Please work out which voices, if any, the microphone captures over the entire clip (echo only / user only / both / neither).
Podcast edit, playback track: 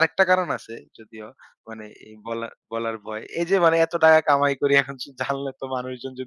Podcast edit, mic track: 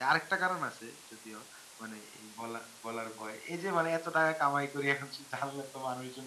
echo only